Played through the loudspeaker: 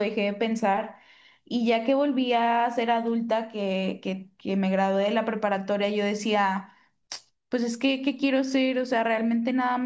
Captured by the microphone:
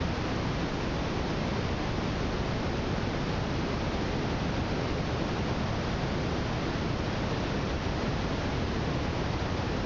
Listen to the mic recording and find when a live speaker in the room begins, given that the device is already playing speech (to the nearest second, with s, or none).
none